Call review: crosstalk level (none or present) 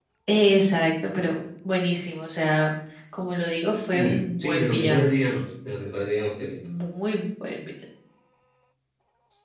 present